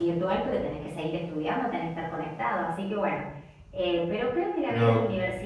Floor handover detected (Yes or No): No